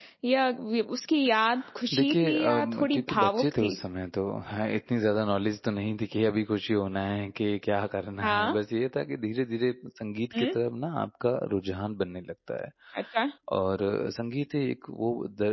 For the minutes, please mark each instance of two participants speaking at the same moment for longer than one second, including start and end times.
1.9-3.7

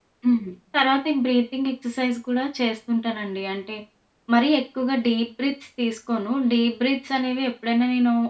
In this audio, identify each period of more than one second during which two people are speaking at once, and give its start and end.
none

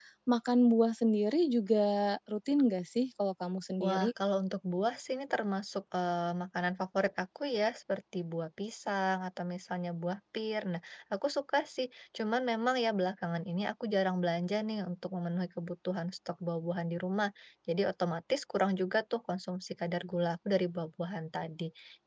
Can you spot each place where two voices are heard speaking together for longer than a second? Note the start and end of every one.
none

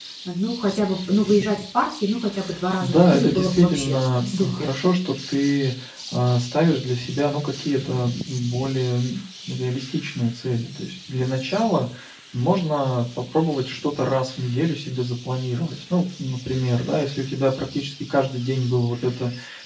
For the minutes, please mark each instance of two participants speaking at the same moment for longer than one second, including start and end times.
2.8-4.7

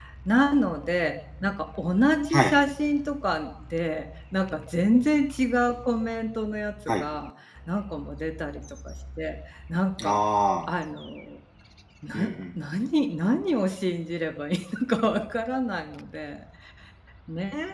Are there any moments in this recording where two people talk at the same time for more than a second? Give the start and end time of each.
none

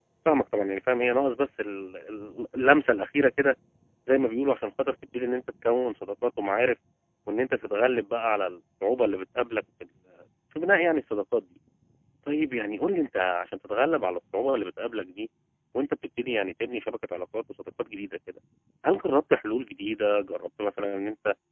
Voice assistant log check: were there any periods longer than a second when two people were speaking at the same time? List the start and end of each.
none

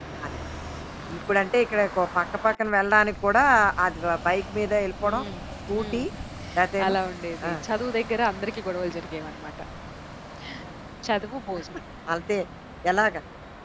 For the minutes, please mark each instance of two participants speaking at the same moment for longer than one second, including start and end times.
none

